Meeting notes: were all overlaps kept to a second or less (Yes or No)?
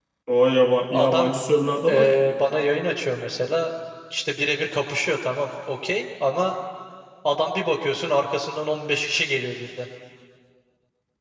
Yes